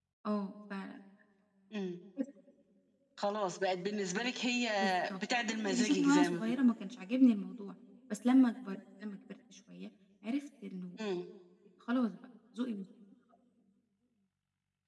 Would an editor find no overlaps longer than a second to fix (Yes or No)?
No